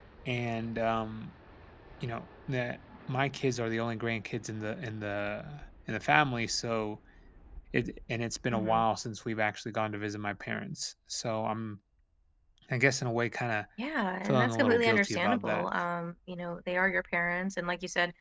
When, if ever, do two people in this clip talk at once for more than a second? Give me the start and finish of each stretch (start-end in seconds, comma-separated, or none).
14.2-15.6